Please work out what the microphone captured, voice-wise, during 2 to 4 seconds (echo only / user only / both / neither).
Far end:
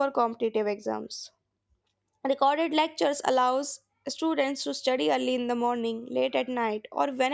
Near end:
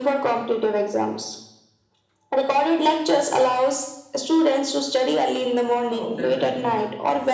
echo only